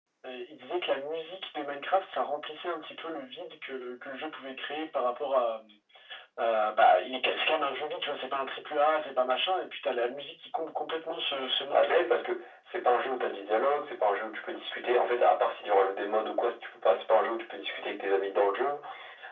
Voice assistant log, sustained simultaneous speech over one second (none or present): none